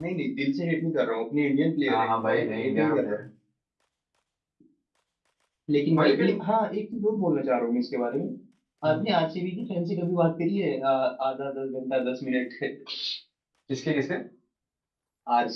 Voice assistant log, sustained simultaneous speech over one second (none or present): present